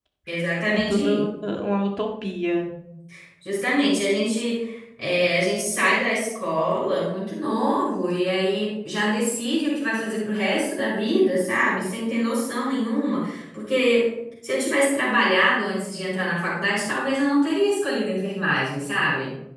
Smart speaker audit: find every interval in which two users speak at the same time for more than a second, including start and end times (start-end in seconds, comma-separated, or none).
none